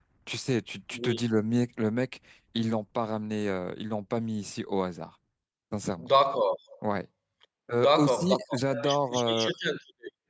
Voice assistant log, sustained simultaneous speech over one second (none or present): present